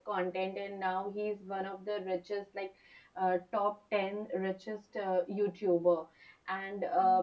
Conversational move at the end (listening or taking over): listening